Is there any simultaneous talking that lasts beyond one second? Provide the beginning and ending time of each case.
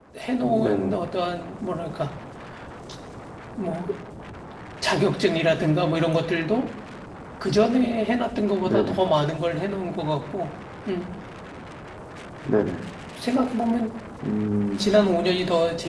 none

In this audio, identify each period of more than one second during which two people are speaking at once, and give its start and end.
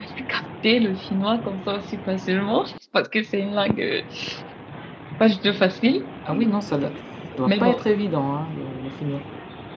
none

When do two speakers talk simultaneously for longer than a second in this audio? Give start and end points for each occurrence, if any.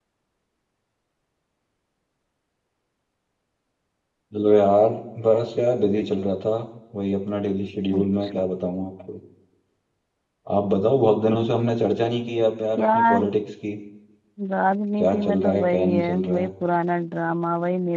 15.0-16.5

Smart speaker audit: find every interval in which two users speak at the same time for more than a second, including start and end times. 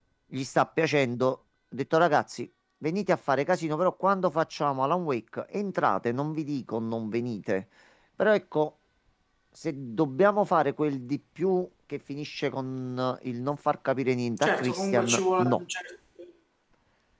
14.4-15.6

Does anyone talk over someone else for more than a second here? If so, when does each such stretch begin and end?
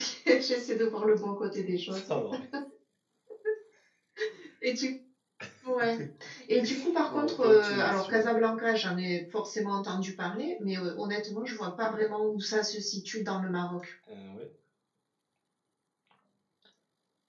7.1-8.4

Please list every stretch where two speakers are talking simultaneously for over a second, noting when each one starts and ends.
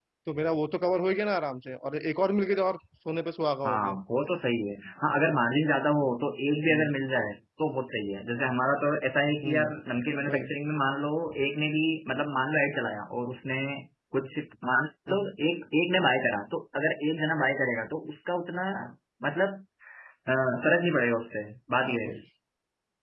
none

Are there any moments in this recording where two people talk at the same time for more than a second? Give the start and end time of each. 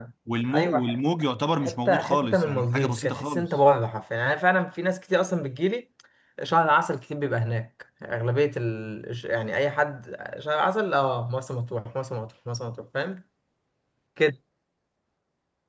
1.6-3.5

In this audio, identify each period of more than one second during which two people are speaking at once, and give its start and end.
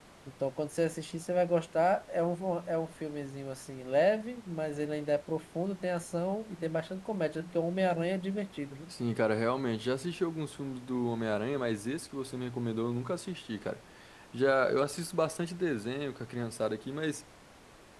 none

